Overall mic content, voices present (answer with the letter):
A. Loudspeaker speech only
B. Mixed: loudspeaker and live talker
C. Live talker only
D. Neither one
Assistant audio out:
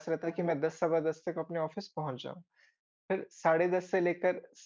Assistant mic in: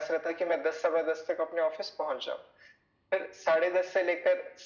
A